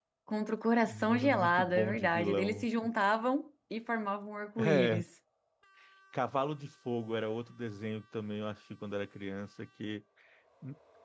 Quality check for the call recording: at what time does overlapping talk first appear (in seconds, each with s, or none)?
0.8 s